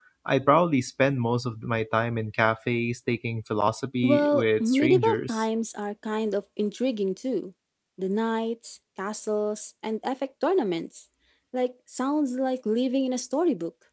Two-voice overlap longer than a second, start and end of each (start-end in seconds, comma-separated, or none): 4.0-5.4